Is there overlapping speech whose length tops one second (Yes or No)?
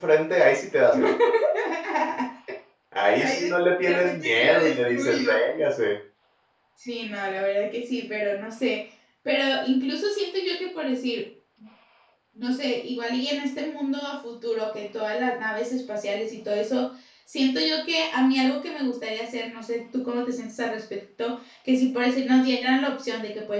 Yes